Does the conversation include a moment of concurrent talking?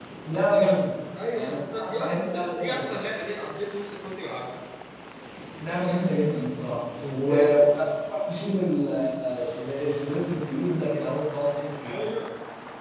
Yes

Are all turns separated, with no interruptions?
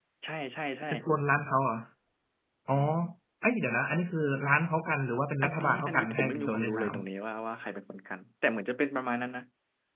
No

